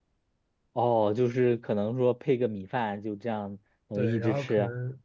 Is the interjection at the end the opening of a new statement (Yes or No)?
Yes